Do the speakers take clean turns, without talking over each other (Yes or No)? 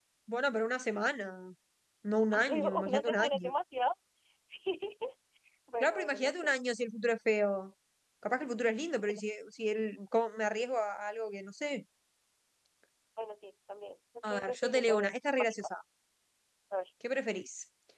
No